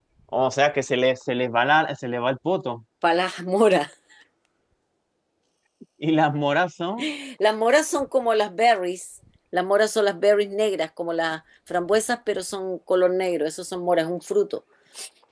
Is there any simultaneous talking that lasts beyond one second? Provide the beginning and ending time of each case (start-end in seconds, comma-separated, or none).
none